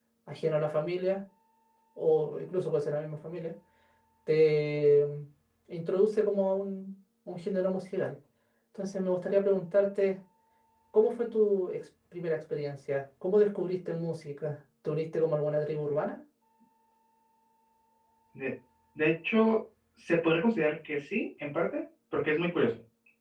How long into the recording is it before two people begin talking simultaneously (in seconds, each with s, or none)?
none